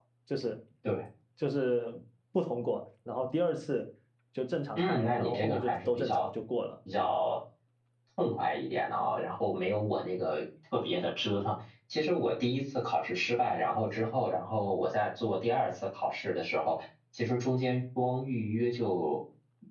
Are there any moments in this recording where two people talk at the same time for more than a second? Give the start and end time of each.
4.8-6.3

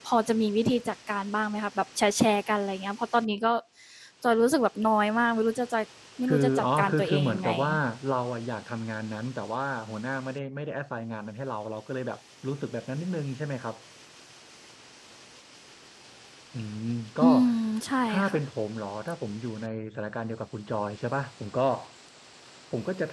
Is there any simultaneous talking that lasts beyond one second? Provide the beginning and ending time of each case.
6.2-7.5

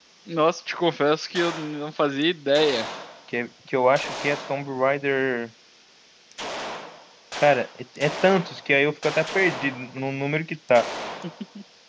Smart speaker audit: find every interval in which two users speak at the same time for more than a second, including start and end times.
none

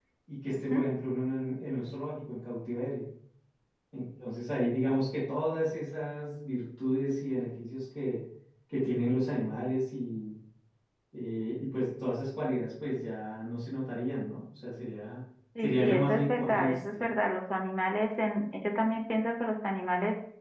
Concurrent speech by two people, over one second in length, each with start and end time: 15.6-17.0

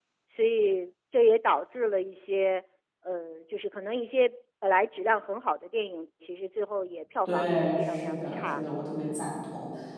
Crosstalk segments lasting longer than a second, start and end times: 7.2-8.6

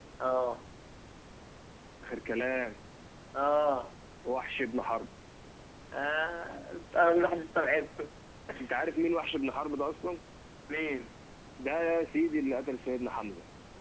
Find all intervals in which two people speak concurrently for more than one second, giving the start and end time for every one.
none

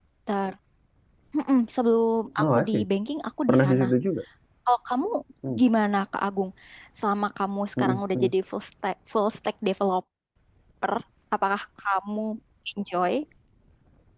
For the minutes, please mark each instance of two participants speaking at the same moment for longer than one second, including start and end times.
none

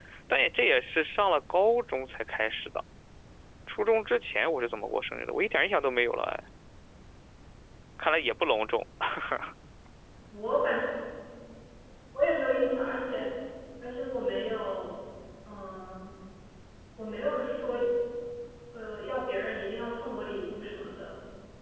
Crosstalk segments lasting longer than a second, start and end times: none

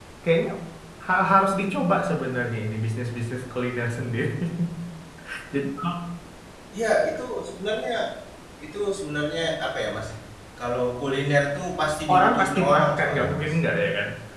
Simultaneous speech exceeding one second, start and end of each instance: 12.1-13.5

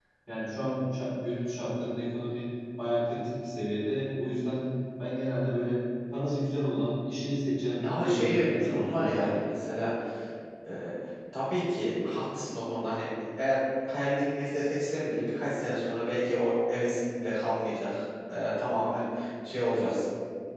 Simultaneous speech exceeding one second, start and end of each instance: 7.8-9.3

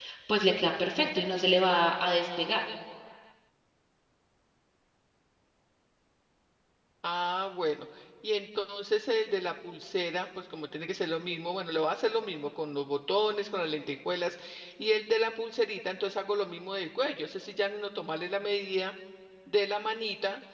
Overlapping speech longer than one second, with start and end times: none

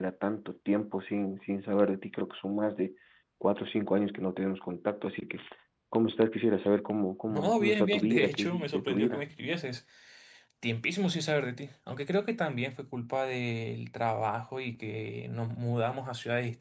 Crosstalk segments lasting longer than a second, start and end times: 7.3-9.2

